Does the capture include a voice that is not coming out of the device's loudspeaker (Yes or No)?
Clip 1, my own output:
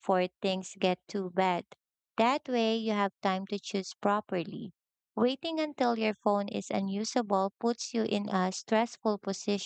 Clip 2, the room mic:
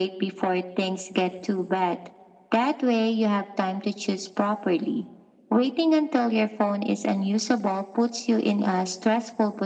No